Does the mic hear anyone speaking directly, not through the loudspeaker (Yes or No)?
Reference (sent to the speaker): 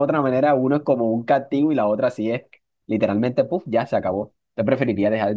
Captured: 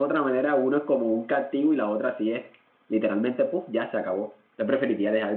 No